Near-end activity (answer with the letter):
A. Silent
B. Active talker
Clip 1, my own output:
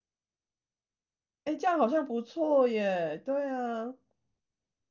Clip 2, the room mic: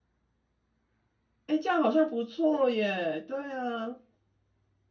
A